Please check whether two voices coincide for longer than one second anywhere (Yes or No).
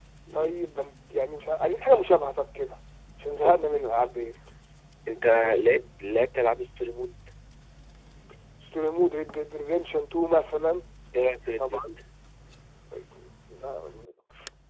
No